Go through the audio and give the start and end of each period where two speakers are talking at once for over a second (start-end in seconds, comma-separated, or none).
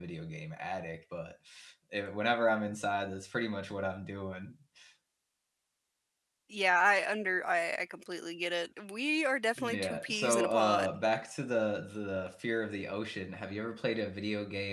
9.6-11.0